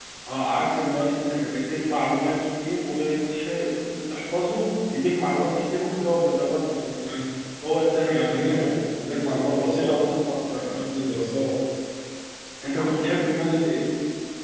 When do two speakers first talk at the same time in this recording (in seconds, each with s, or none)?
8.0 s